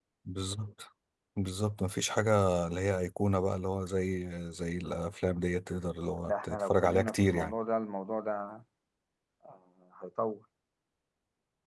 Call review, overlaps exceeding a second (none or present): present